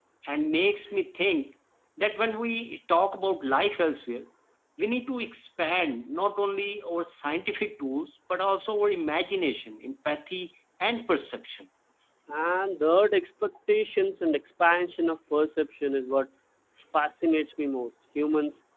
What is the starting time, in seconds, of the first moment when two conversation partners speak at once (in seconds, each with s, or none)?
none